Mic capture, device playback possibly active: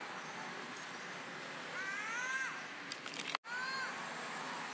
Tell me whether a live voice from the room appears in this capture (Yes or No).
No